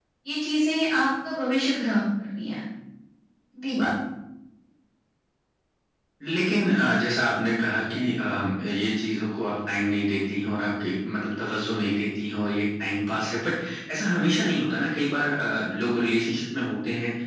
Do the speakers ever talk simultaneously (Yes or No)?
No